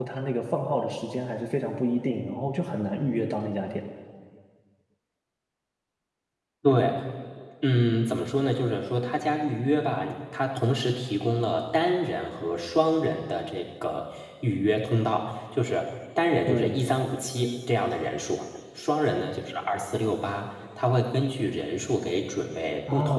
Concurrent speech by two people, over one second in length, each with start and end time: none

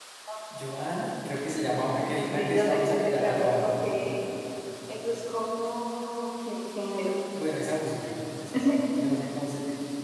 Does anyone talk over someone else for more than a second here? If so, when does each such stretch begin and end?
2.0-3.7

